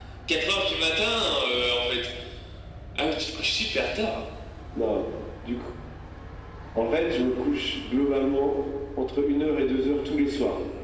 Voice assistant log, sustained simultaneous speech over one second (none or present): none